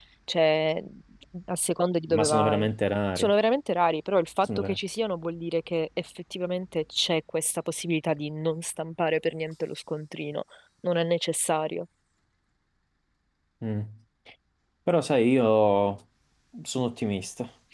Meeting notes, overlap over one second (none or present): none